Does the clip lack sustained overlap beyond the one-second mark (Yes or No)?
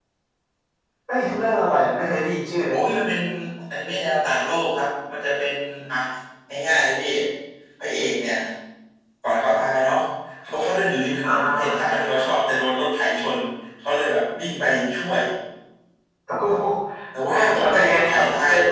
No